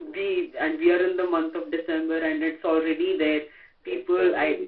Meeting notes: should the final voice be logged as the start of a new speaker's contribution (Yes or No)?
No